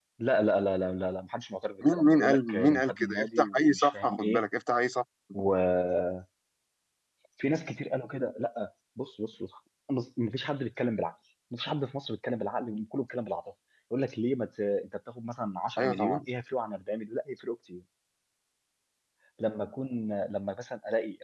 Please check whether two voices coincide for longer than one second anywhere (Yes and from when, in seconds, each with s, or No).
Yes, from 1.9 s